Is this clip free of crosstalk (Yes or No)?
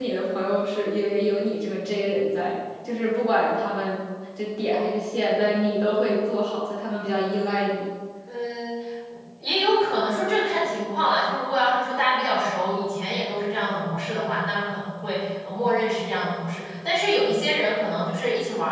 Yes